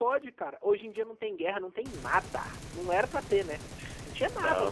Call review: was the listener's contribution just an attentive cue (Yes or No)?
Yes